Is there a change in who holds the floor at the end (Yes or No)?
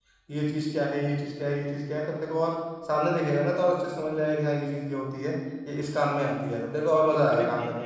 Yes